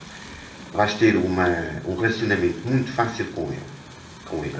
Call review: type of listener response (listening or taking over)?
taking over